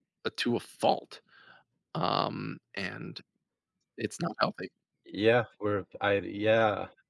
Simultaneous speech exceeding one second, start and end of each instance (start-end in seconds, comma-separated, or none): none